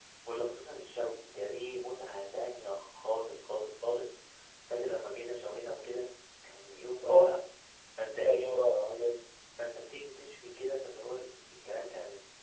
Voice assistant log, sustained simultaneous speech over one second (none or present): none